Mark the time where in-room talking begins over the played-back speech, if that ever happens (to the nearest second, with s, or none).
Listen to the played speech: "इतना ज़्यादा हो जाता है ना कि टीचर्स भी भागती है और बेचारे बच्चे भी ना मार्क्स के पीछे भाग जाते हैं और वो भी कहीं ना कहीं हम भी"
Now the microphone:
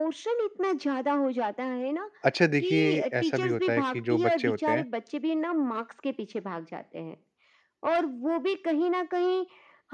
2 s